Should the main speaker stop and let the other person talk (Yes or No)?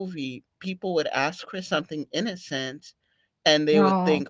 No